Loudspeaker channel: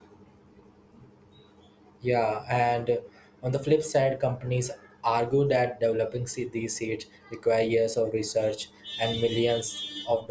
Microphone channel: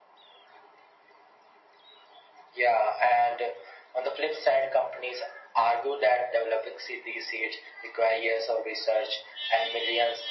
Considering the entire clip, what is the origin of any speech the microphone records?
echo only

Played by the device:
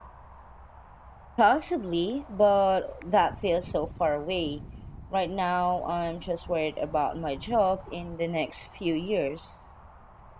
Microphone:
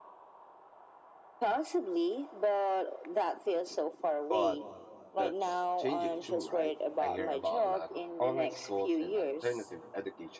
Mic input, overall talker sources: both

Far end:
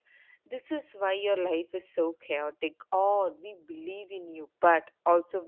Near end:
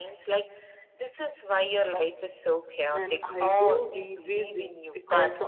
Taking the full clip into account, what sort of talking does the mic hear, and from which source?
both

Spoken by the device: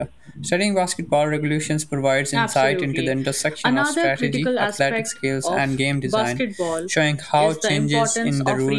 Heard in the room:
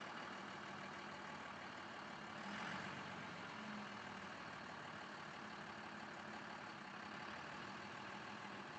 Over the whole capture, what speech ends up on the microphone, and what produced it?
neither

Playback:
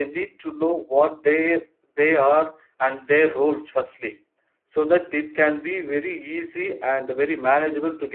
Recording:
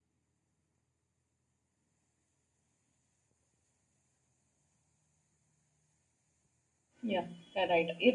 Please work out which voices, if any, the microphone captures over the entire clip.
user only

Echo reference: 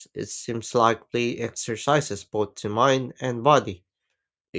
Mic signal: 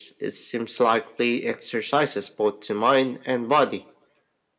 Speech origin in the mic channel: echo only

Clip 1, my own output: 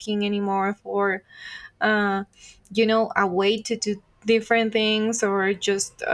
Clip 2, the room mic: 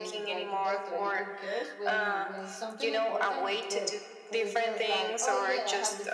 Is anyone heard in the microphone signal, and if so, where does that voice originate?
both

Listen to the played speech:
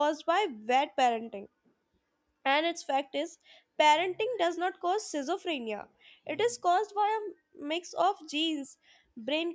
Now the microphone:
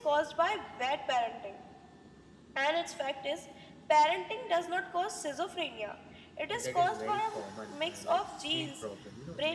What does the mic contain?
both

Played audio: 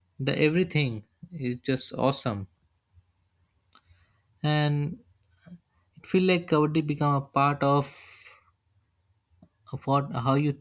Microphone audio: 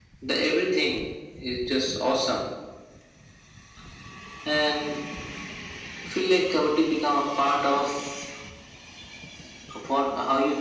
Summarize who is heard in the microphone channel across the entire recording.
echo only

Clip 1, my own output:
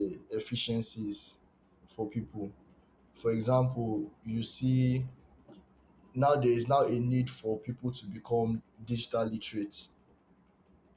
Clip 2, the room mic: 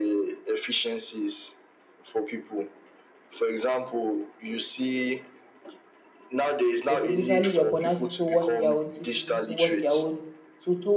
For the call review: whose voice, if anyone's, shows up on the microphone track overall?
both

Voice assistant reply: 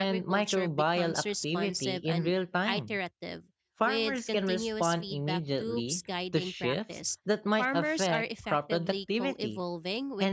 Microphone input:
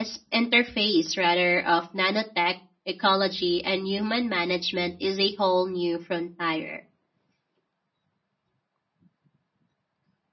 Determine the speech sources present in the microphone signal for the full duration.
user only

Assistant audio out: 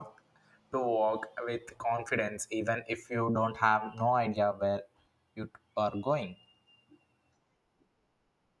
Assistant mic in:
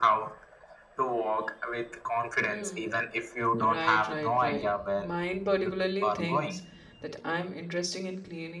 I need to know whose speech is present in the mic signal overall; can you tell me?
both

